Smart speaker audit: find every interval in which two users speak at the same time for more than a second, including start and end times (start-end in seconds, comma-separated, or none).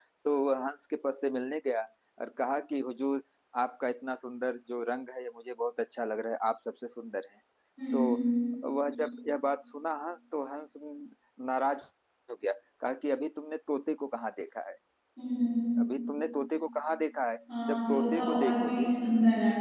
17.7-18.9